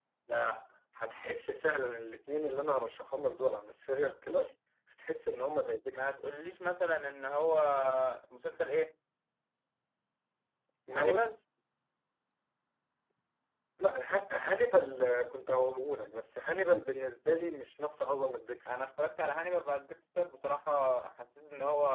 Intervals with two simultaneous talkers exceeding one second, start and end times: none

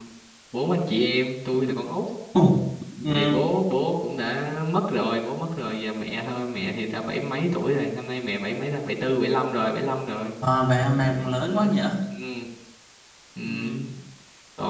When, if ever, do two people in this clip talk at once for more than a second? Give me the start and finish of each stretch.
none

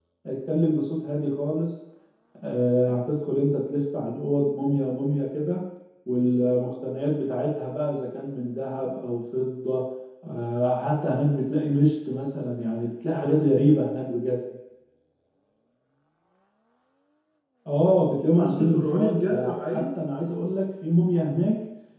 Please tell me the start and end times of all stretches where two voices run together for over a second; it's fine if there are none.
18.3-19.8

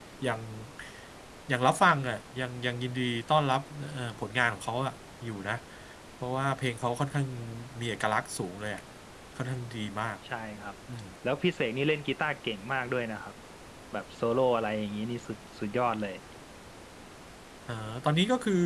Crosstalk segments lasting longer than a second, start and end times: none

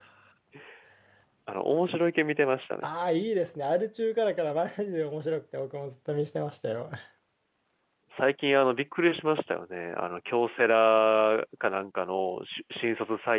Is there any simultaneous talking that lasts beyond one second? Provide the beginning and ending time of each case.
none

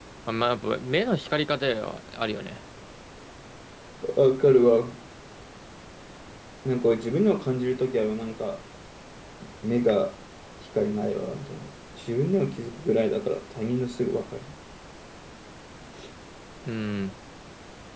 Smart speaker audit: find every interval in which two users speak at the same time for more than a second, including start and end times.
none

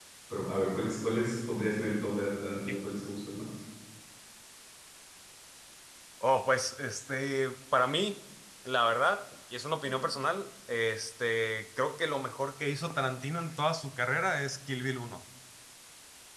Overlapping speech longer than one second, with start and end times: none

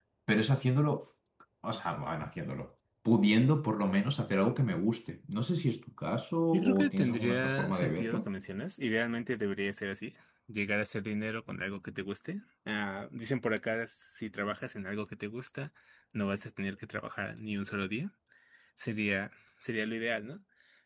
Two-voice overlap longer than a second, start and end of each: 6.5-8.3

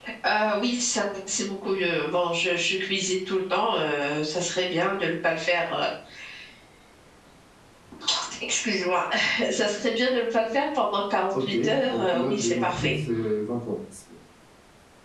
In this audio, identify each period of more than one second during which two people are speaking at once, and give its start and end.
11.4-12.9

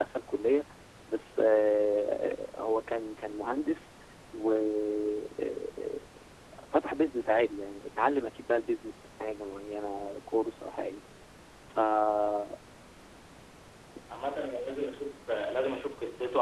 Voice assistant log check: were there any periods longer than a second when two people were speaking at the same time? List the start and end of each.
none

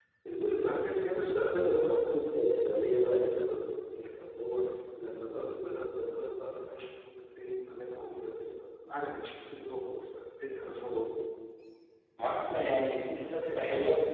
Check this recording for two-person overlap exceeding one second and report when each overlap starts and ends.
none

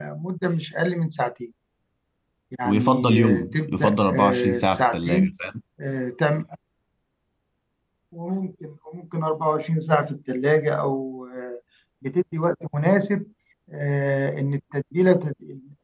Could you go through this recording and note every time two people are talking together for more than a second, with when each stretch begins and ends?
2.6-5.3

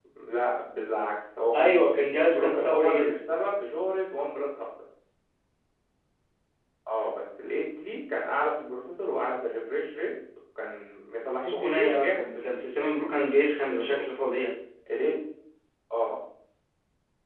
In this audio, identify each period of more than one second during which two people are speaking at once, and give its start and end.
1.5-3.1, 11.4-12.7

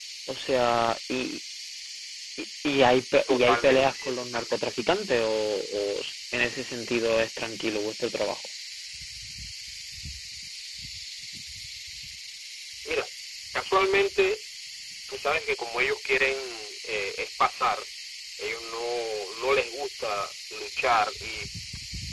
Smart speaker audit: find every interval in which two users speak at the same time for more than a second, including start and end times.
3.3-4.6

